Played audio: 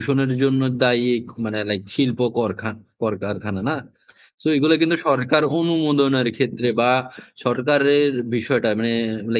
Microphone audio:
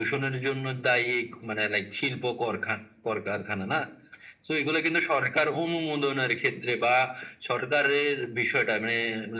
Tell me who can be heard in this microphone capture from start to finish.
echo only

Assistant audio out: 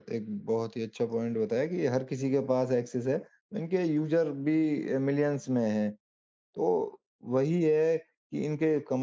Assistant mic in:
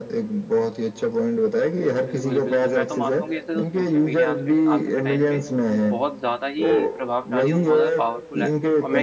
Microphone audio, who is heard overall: both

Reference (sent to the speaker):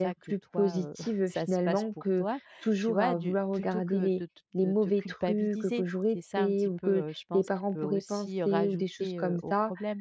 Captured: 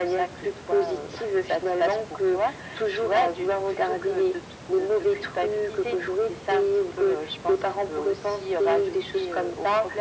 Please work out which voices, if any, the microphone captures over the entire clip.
echo only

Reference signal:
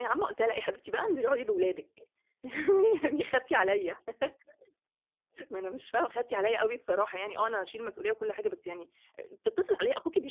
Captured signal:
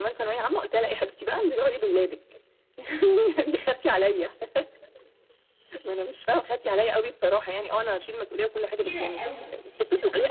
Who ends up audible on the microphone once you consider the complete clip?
both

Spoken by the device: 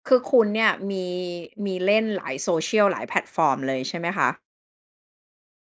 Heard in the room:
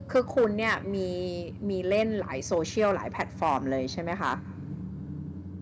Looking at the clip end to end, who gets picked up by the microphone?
echo only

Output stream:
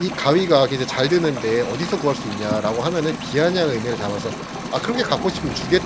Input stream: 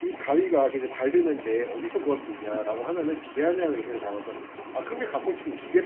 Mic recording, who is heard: echo only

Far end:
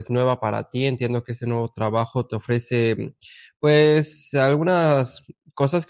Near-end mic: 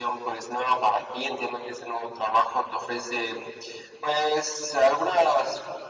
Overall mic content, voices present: echo only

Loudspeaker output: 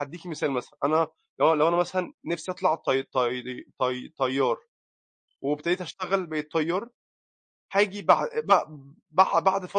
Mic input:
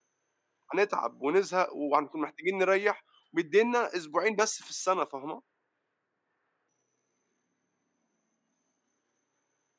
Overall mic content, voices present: user only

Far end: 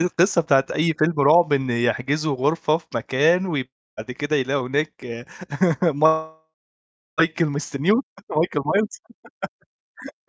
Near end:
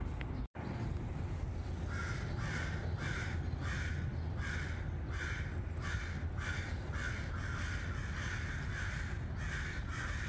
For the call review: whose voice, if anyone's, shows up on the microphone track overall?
neither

